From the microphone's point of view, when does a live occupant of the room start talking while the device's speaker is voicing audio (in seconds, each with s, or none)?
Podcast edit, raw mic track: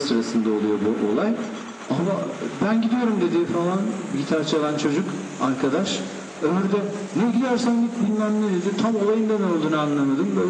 none